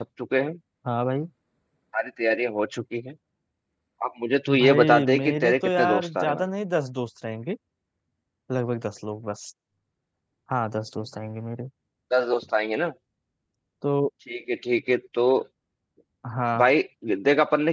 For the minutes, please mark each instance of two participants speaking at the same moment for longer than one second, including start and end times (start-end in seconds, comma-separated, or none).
4.6-6.4